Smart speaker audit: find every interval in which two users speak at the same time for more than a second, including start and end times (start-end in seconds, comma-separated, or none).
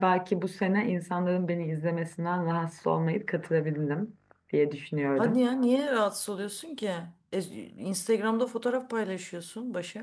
none